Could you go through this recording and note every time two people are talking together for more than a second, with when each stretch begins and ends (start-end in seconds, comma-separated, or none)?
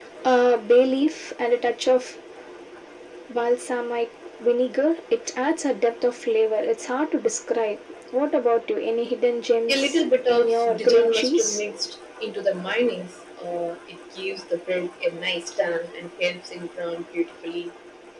9.7-11.6